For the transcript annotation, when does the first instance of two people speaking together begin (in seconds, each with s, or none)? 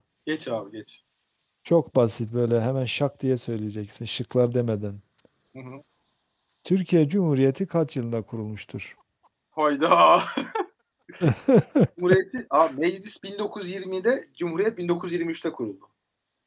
none